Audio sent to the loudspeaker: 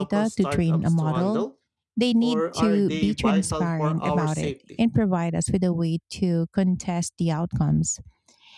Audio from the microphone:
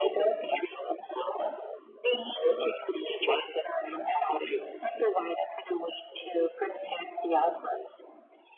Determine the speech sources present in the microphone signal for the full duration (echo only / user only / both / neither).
echo only